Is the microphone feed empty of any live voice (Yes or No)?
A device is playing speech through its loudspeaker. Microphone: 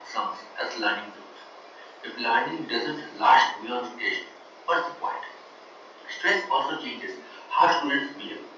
Yes